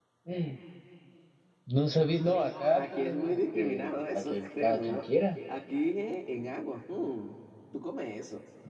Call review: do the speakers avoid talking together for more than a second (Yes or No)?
No